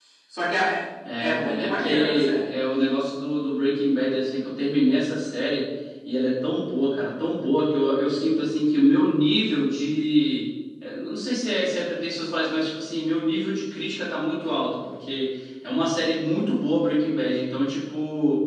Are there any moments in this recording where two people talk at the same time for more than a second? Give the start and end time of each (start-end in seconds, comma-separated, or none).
1.2-2.5